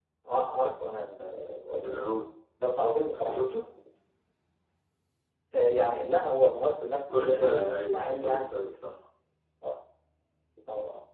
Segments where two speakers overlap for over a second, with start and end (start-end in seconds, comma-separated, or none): 7.1-8.5